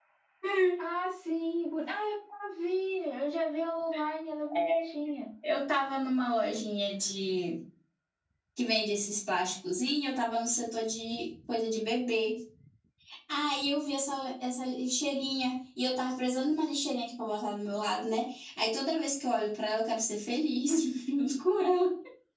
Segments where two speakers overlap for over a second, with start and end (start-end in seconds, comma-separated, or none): none